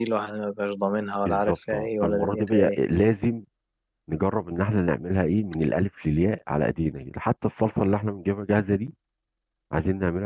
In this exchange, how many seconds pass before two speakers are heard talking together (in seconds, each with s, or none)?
1.2 s